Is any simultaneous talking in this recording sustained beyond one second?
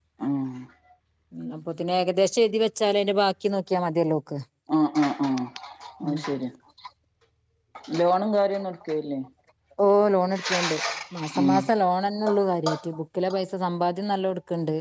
No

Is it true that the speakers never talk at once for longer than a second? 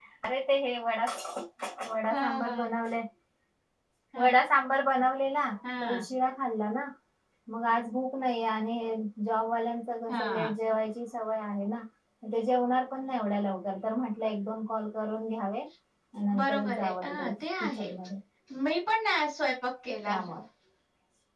No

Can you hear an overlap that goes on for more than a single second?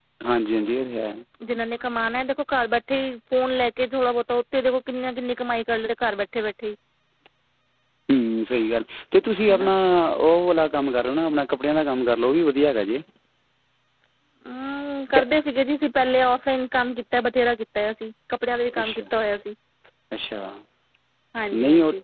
No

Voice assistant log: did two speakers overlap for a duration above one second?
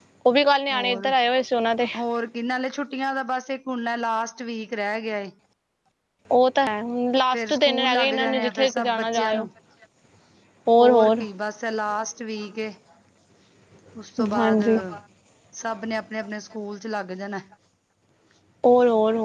Yes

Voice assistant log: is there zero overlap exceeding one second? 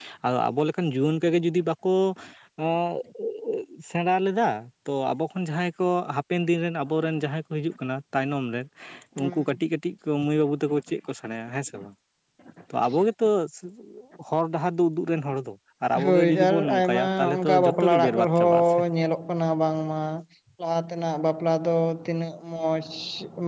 No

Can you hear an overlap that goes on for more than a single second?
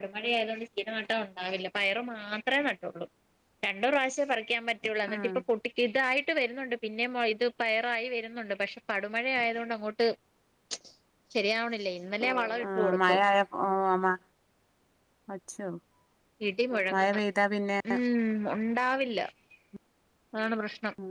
No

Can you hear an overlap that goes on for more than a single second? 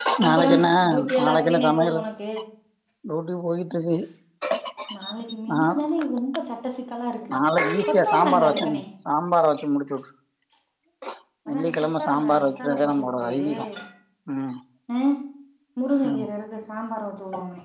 Yes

